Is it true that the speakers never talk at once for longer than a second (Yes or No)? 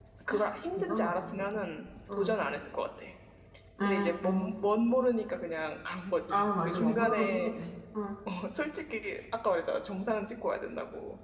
No